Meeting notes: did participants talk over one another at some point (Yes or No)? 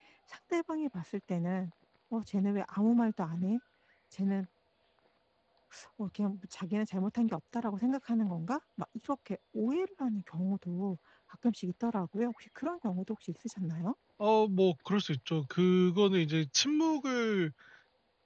No